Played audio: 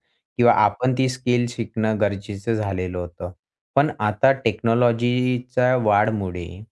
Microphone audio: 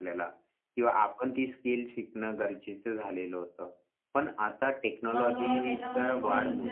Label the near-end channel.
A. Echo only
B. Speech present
B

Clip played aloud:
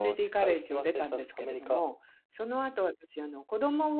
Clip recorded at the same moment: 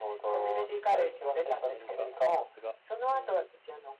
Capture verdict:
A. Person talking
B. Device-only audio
A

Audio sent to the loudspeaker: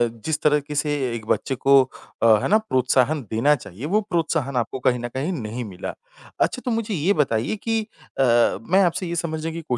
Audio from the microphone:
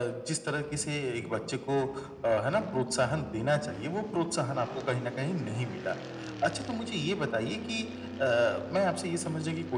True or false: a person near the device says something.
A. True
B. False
B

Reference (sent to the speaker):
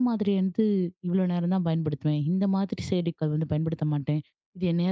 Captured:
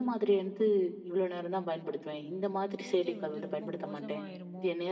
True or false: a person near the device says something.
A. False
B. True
B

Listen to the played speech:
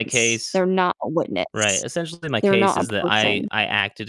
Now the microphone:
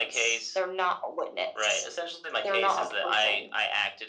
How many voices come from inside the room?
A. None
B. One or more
A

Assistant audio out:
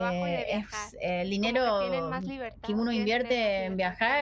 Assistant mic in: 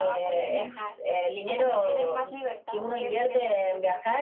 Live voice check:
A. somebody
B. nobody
A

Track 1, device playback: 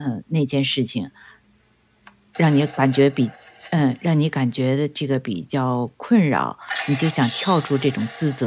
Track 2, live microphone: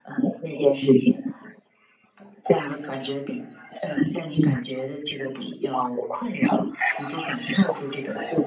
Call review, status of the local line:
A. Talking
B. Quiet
B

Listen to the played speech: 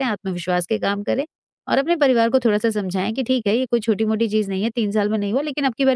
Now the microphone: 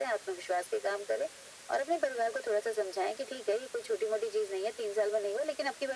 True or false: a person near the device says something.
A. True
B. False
B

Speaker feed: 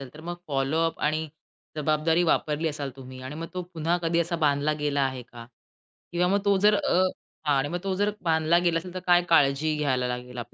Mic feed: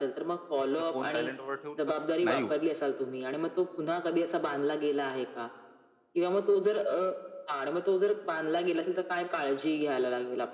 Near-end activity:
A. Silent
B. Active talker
B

